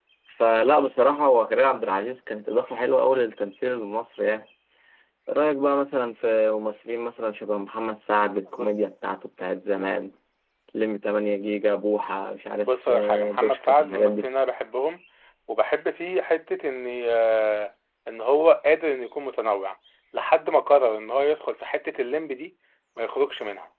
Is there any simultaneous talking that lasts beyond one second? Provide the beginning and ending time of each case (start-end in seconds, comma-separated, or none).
12.6-14.2